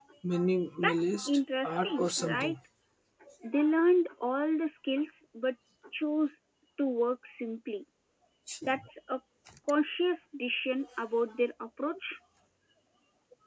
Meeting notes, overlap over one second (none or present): present